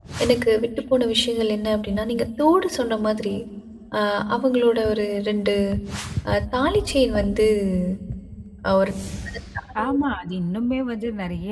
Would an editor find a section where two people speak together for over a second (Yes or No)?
No